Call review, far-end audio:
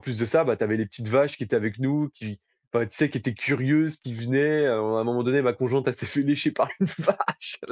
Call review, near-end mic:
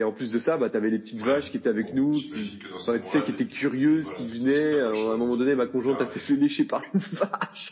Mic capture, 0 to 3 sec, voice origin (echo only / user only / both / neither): both